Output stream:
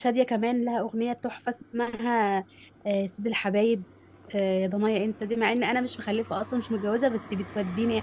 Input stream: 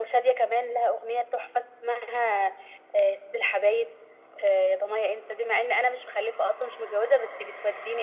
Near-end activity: none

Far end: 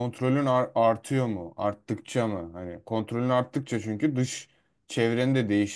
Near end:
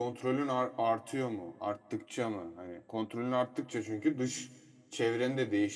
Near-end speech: none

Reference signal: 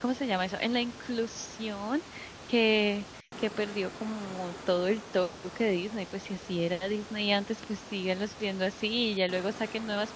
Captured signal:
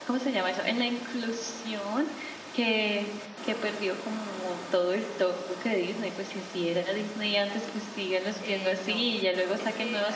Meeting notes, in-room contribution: present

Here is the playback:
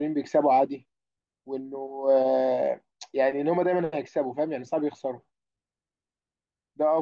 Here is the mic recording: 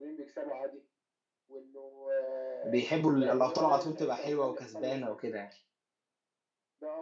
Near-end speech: present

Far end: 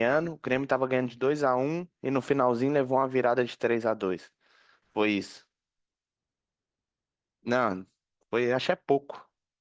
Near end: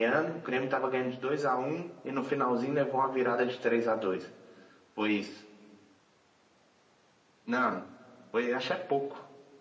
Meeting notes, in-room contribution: none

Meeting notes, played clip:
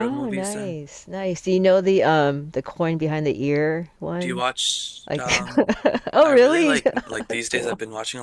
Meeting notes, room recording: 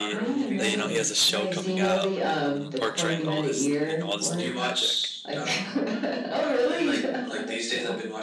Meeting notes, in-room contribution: present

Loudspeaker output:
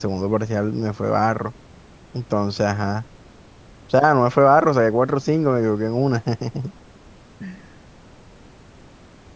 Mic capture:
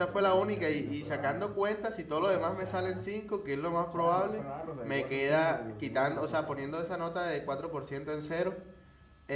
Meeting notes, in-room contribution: present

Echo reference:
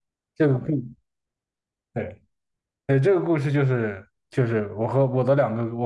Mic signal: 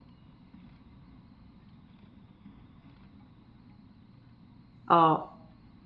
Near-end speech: present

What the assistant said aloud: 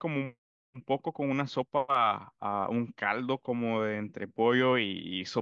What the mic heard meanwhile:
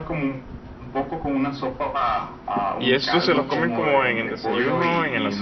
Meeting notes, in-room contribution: present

